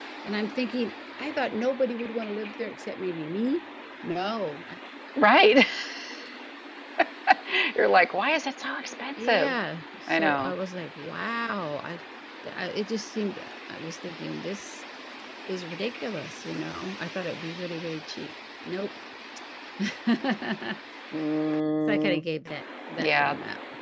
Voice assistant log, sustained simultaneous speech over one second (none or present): none